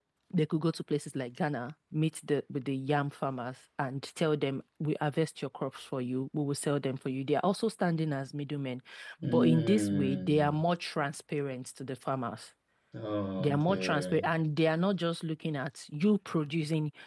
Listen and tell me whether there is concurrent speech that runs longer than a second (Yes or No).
Yes